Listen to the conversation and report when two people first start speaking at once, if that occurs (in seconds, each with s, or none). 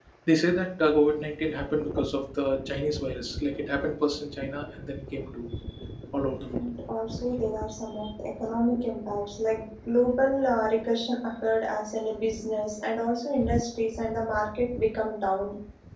none